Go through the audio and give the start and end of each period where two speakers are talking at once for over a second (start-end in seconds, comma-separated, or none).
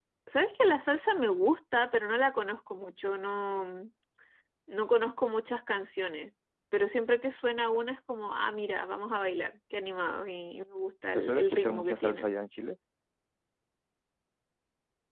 11.1-12.3